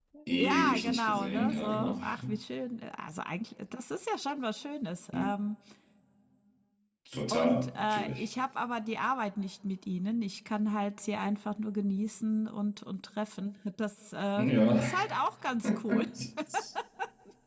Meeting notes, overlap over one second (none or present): present